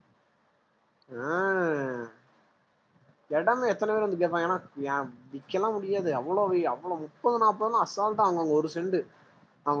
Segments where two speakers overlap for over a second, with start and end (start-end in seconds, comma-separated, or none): none